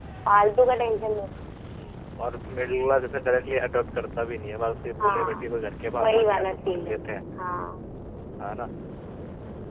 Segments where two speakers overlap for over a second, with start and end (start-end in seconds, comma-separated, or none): 6.0-7.2